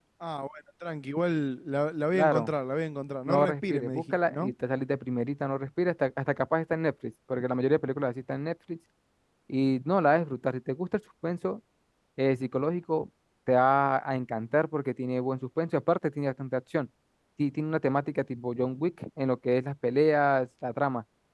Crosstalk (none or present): present